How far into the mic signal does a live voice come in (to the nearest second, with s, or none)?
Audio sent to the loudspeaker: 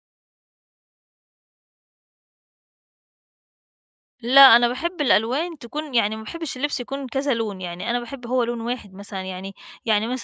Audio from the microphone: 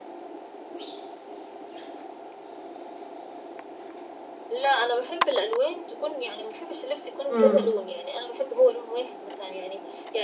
7 s